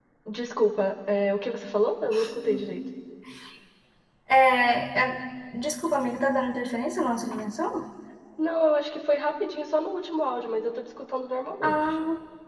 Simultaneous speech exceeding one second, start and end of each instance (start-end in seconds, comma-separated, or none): none